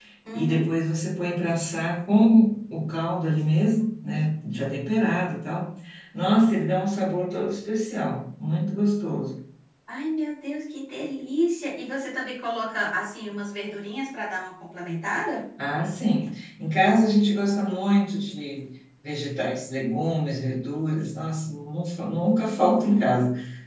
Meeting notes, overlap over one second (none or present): none